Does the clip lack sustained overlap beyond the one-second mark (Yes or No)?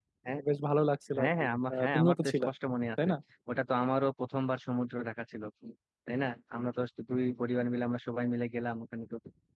No